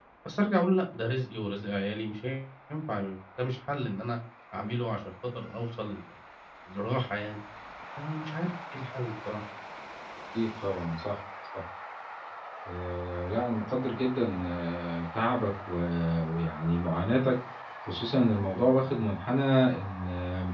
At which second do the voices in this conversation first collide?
none

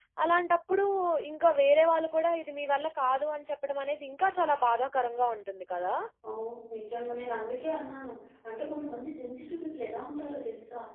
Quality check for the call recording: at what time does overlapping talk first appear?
none

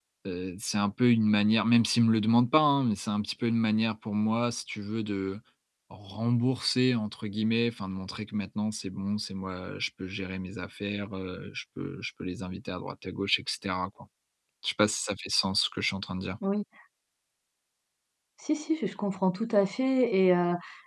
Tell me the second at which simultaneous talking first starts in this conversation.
none

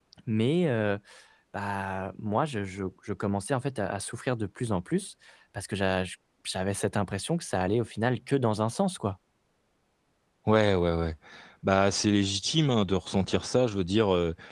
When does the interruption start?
none

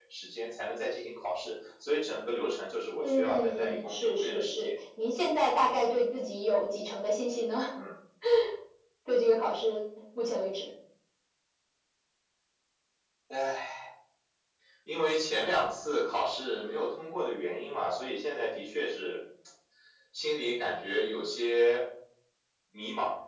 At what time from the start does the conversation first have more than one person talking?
3.0 s

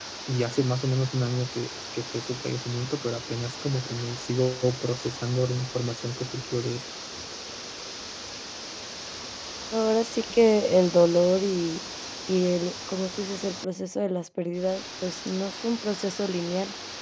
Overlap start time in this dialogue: none

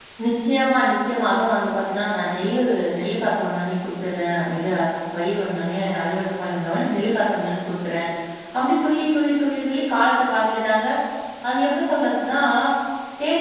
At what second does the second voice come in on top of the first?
none

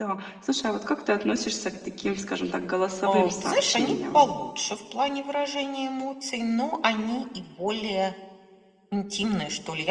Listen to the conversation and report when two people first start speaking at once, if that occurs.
3.0 s

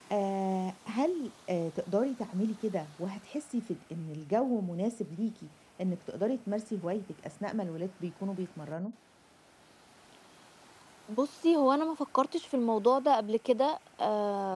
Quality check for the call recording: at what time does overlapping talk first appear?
none

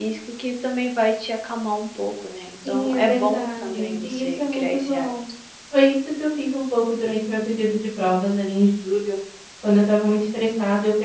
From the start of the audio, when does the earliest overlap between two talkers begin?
2.6 s

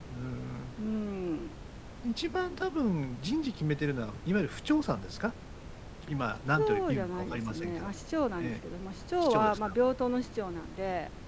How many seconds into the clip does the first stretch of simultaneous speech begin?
6.6 s

